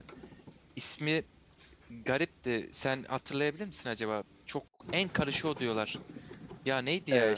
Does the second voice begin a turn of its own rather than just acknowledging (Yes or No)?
Yes